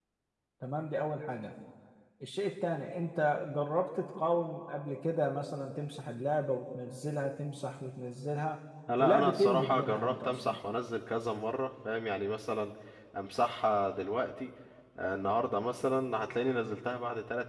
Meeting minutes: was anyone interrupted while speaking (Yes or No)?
Yes